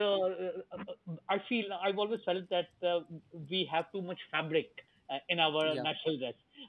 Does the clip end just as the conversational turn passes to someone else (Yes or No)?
No